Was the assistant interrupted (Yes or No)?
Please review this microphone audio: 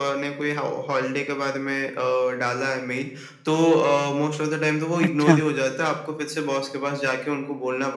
Yes